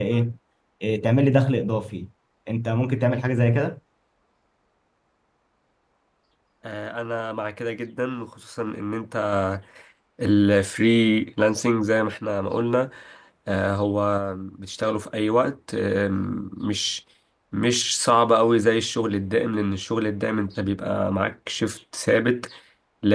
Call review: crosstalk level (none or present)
none